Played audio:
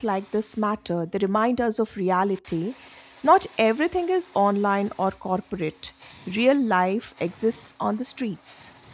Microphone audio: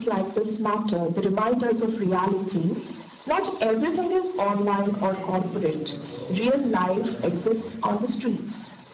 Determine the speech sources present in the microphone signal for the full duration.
both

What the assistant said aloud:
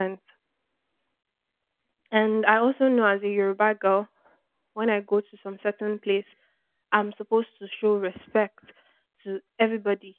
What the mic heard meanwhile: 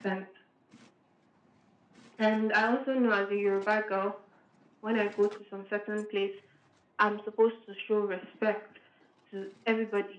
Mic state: echo only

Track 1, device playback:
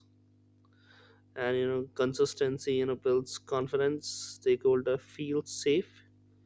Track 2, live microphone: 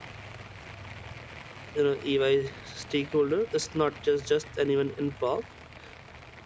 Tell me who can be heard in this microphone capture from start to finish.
user only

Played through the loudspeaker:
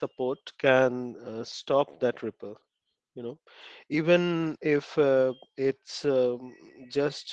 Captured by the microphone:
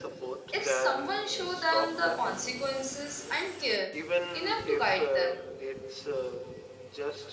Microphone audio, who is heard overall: both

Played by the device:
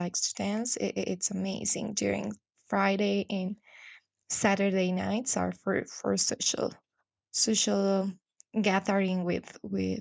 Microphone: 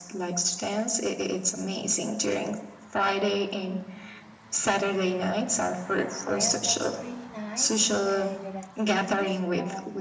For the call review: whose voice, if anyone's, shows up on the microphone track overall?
both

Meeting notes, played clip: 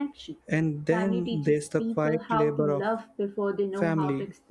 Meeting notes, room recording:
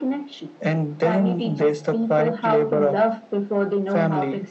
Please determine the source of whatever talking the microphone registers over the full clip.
echo only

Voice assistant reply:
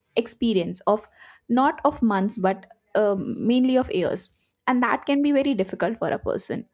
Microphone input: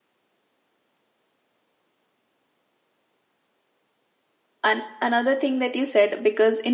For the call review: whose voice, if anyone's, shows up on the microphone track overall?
user only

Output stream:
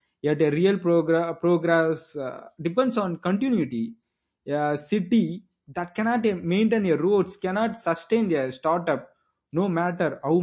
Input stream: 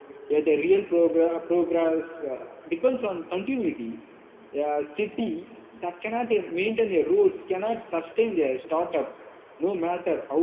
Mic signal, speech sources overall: echo only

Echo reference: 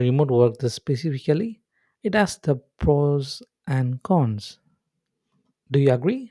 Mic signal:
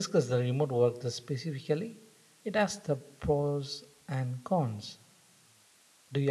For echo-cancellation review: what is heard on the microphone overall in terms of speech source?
echo only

